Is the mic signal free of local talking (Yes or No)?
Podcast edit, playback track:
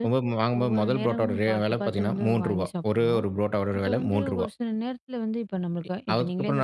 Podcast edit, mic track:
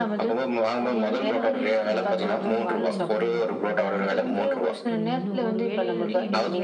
No